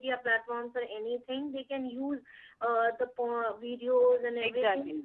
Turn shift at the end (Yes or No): No